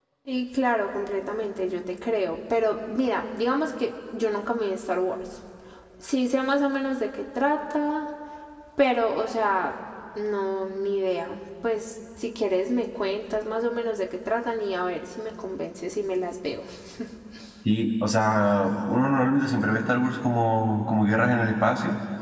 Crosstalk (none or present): none